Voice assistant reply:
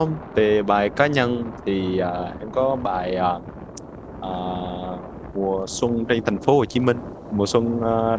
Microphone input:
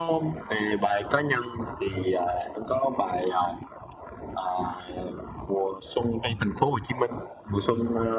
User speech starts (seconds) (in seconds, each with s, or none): none